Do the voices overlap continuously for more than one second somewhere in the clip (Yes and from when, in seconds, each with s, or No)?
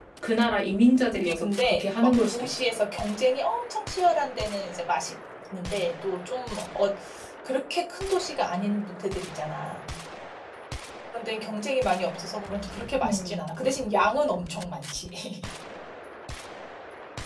Yes, from 1.1 s